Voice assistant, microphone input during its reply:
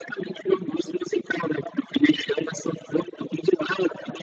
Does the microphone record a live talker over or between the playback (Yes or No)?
No